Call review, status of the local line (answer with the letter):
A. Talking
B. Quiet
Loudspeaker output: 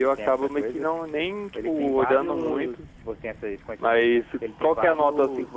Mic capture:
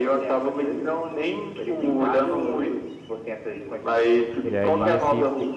A